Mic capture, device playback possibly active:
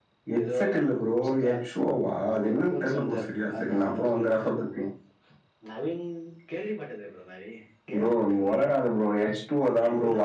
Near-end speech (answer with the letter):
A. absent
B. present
B